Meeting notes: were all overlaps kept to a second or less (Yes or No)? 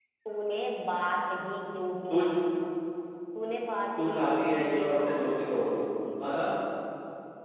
No